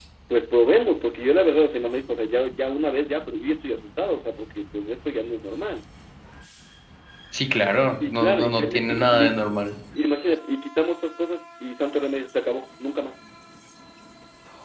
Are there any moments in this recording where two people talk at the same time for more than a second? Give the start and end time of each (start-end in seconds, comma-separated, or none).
8.1-9.4